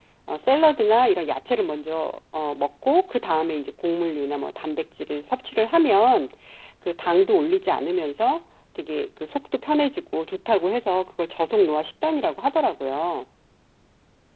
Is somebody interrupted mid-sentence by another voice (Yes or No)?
No